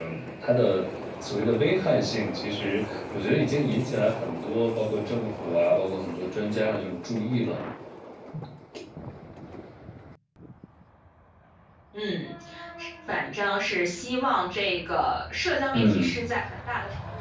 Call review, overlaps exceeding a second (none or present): none